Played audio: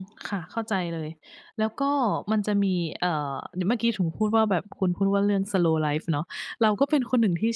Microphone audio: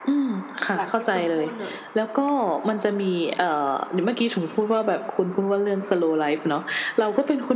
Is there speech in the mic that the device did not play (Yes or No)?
Yes